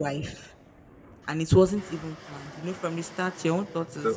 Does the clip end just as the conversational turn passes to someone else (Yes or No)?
Yes